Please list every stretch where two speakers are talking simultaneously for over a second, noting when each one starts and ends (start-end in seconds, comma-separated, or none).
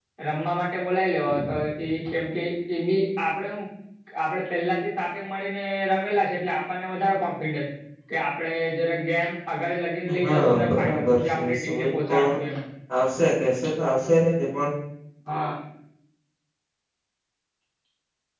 10.2-12.2